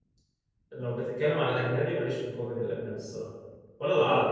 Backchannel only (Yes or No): Yes